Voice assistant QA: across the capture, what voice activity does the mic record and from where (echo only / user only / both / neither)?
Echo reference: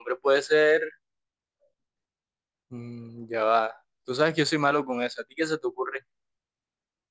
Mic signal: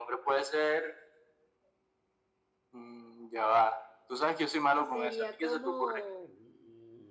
both